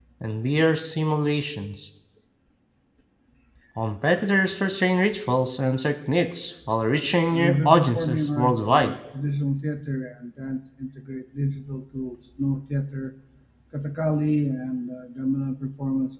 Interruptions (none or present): present